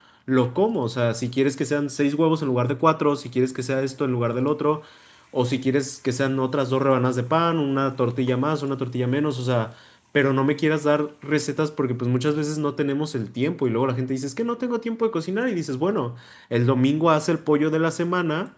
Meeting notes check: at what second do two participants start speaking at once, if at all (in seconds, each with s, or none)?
none